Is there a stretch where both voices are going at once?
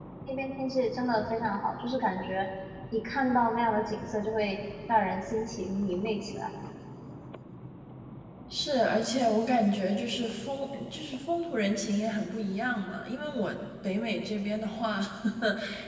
No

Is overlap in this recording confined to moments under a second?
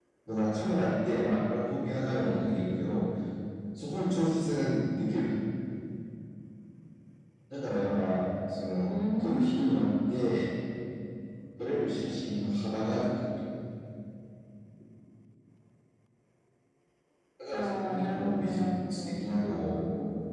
No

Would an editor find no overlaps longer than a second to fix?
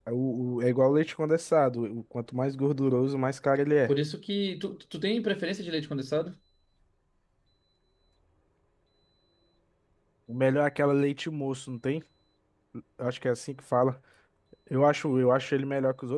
Yes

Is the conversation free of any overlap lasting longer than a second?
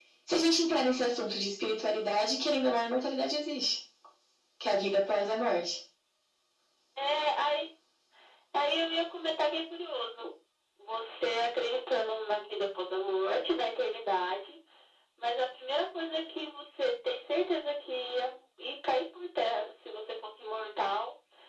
Yes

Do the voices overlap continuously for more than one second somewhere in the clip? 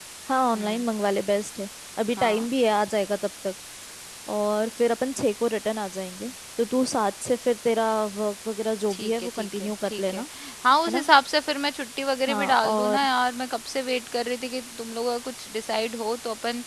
Yes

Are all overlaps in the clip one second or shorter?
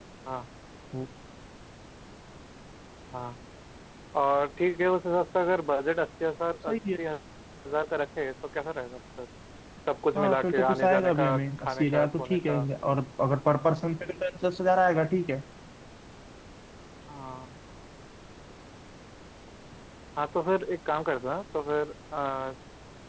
No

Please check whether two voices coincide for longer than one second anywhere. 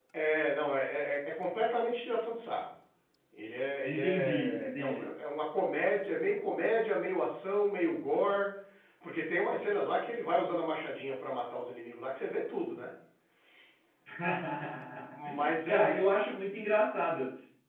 Yes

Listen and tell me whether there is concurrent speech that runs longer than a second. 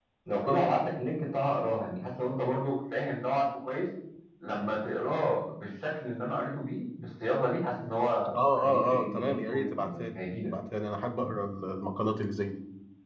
Yes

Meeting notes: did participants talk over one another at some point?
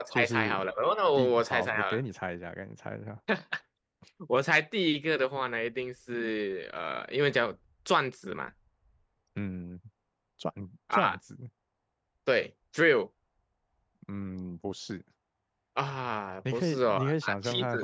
Yes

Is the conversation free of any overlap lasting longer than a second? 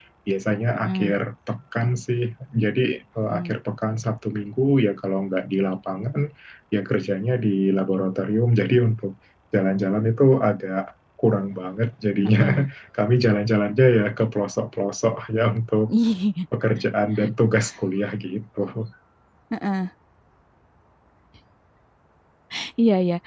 Yes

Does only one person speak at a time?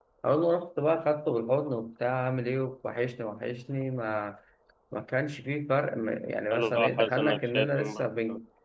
No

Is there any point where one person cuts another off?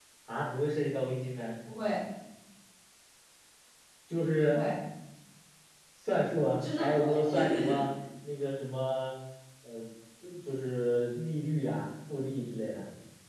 Yes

